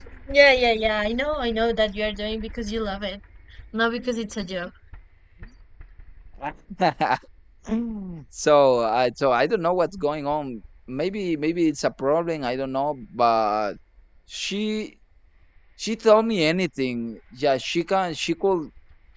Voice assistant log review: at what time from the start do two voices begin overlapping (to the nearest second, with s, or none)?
none